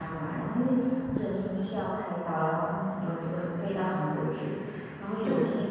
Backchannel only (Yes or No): Yes